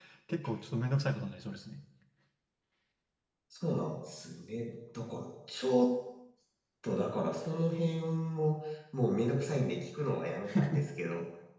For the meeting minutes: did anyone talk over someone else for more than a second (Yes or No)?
No